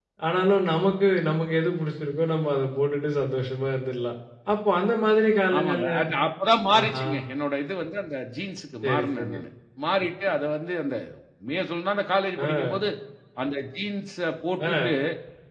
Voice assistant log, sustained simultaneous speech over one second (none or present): none